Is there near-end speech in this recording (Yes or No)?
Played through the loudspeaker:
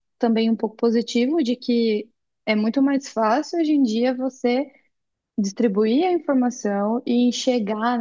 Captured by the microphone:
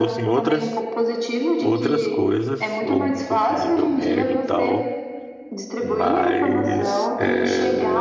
Yes